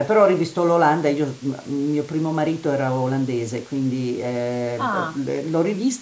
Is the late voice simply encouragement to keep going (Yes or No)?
Yes